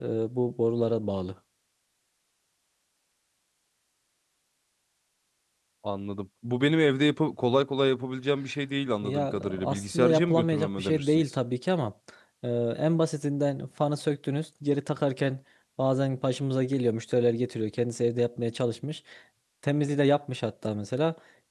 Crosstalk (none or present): present